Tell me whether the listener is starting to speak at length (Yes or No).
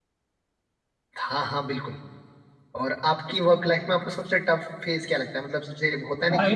Yes